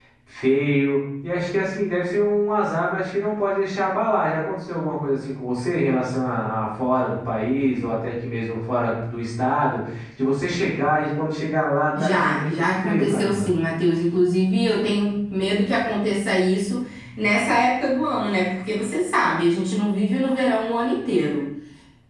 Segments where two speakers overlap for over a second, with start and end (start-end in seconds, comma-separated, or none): 12.0-13.5